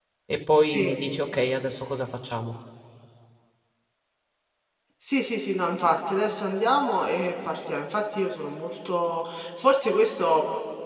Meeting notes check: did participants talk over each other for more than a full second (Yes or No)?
No